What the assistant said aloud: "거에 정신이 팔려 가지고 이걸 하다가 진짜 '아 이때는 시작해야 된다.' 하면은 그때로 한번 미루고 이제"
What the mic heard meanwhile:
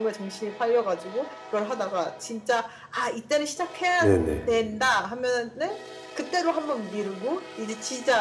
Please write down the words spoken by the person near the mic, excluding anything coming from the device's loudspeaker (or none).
네네.